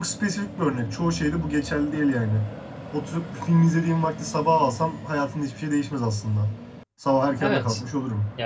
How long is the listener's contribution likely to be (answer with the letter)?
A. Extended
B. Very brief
A